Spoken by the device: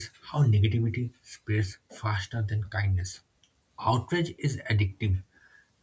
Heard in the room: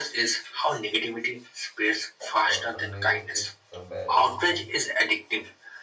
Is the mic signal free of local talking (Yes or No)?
No